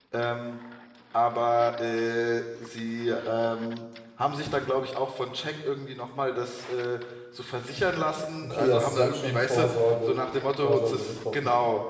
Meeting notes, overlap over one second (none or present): present